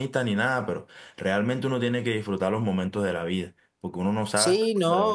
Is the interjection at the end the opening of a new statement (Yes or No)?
Yes